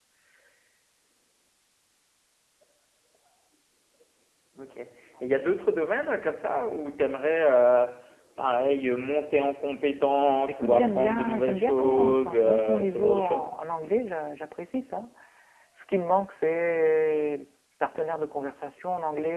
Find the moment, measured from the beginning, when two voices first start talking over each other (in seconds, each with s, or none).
10.5 s